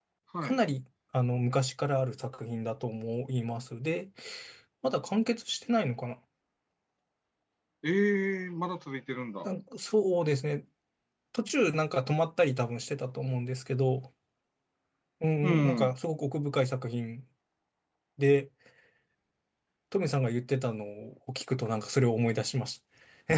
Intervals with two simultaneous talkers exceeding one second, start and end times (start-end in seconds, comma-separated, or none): none